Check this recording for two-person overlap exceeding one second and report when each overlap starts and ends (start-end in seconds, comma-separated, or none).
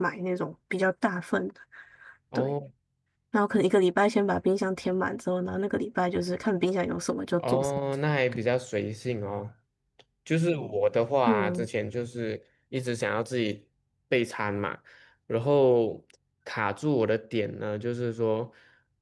none